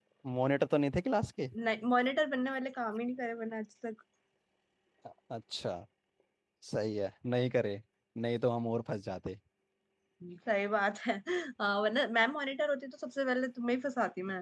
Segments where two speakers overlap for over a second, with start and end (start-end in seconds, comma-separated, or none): none